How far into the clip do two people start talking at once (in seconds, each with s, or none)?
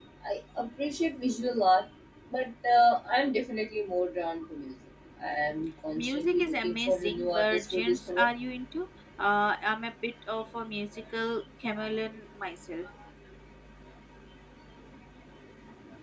6.0 s